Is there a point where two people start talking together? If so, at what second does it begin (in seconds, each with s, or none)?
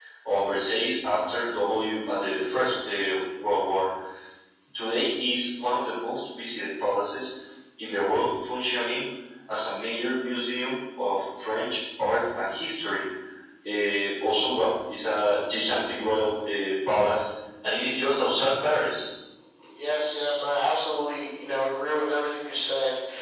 none